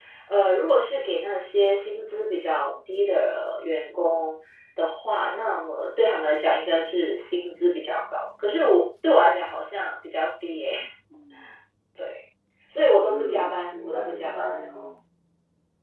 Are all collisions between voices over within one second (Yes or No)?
No